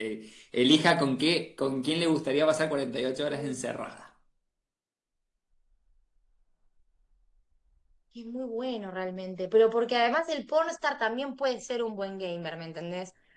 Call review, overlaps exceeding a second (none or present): none